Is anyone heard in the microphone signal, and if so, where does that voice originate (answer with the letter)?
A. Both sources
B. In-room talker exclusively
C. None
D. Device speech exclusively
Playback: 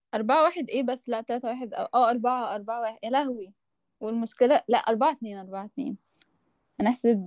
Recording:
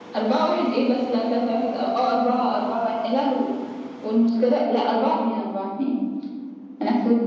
D